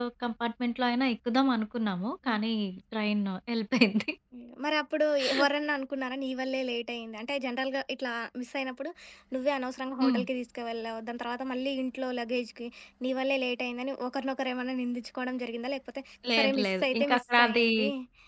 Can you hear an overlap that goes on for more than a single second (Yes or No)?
Yes